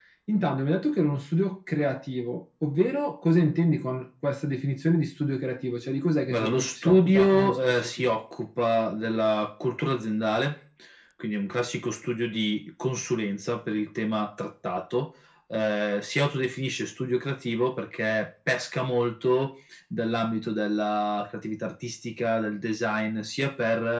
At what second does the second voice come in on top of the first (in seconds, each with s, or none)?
6.3 s